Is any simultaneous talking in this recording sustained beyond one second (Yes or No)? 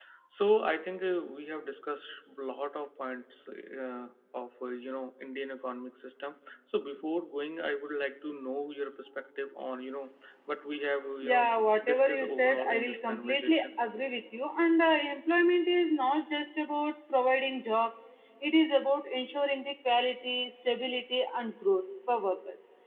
Yes